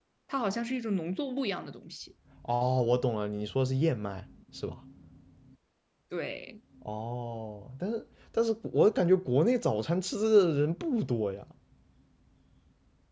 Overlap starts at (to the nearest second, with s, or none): none